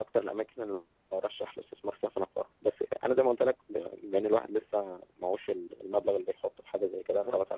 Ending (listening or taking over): listening